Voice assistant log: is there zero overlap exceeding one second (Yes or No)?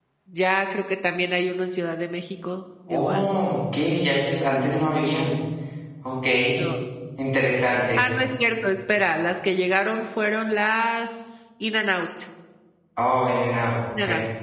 Yes